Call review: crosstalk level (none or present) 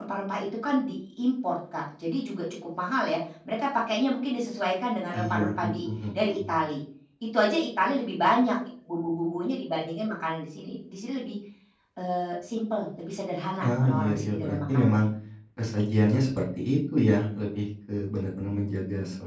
present